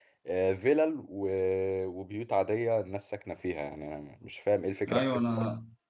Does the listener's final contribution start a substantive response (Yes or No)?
Yes